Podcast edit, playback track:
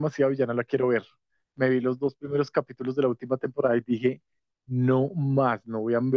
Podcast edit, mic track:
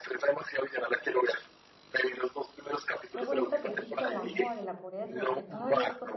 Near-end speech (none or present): present